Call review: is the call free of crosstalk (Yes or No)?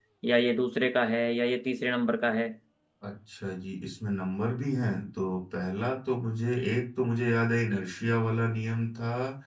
Yes